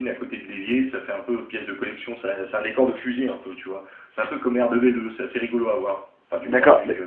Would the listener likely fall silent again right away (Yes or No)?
No